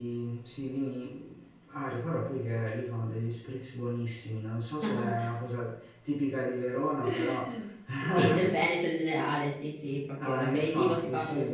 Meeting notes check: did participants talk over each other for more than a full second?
Yes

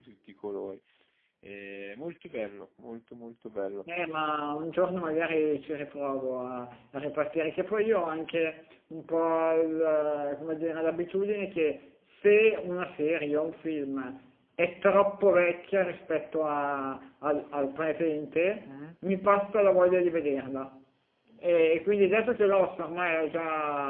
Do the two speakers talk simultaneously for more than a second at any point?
No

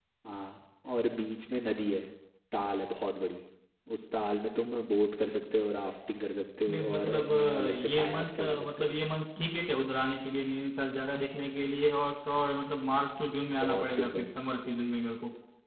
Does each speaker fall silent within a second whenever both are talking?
No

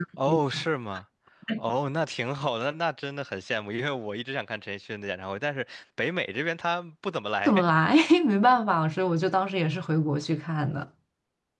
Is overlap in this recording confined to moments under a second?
Yes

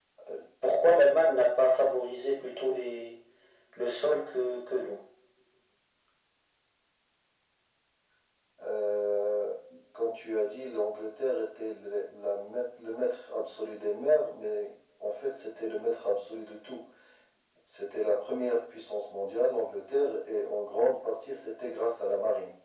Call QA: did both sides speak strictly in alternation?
Yes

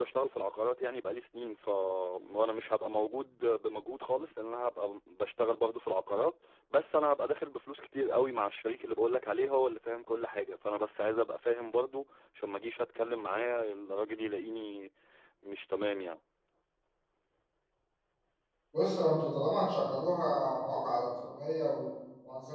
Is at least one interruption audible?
No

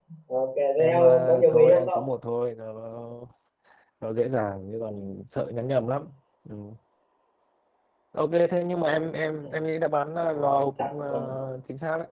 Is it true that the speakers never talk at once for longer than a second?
No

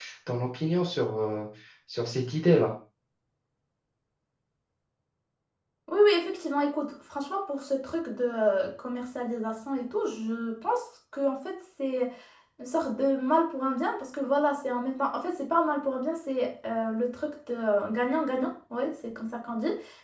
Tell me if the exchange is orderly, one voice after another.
Yes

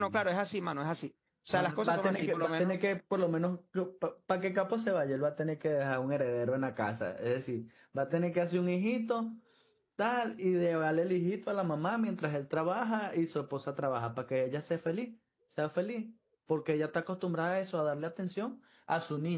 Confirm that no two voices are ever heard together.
No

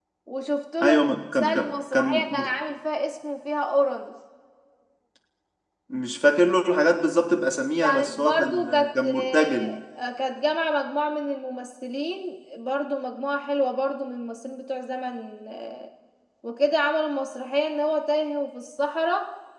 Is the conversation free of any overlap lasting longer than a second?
No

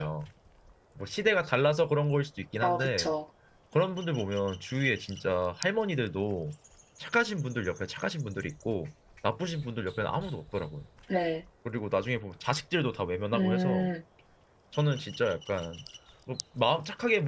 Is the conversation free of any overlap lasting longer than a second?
Yes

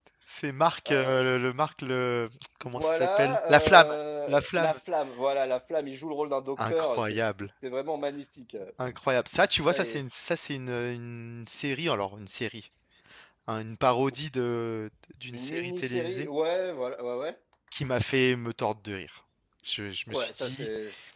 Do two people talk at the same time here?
Yes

